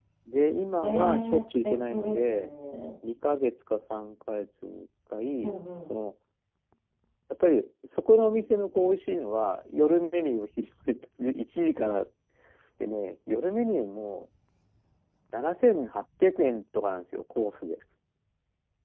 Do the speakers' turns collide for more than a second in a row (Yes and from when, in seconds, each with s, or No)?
Yes, from 0.8 s